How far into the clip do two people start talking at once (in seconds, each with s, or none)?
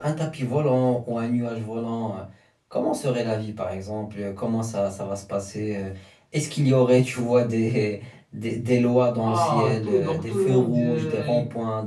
9.2 s